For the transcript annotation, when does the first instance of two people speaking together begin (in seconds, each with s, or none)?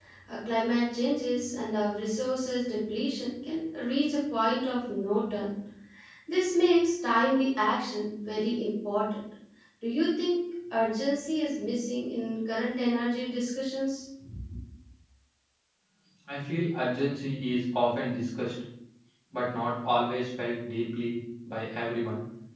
none